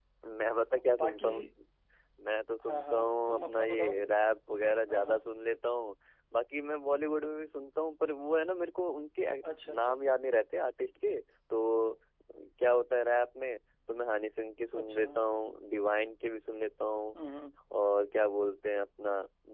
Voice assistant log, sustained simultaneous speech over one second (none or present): present